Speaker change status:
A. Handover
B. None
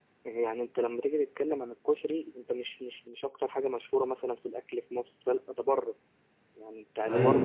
B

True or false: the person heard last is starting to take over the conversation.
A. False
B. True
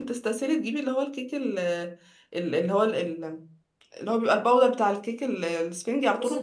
B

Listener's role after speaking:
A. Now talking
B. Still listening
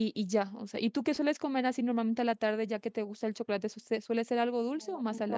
A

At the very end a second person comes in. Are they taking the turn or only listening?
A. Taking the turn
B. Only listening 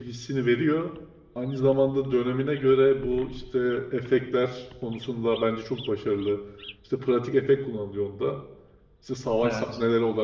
B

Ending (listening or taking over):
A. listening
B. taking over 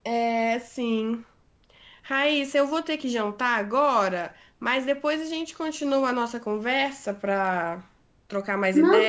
B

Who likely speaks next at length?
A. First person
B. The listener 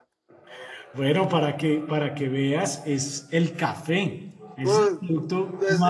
B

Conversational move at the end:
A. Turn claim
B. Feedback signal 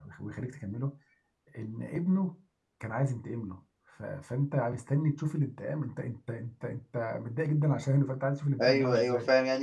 A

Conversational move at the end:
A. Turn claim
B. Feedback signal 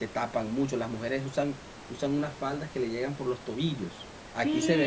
A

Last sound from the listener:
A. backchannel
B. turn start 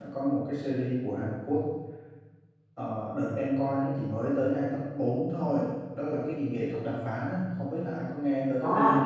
B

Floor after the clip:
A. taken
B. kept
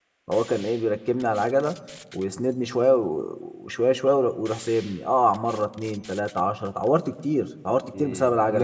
A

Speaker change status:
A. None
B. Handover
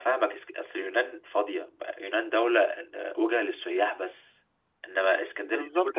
B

